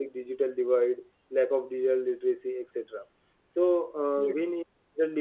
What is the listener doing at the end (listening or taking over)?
listening